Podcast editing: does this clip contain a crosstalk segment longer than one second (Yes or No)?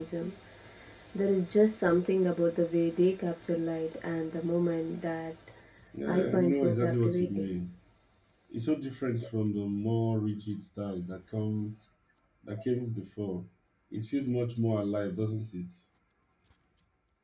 Yes